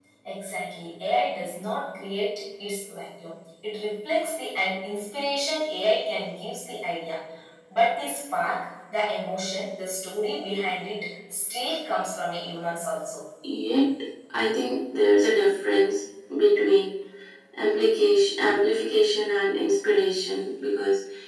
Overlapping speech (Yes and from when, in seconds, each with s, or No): No